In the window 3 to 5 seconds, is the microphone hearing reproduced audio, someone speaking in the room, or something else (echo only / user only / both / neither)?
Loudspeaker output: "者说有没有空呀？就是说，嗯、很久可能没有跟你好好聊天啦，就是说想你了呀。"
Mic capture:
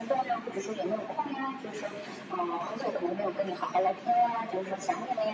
echo only